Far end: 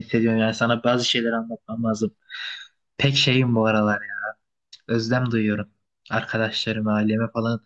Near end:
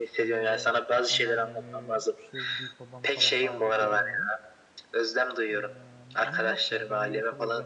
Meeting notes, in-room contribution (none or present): present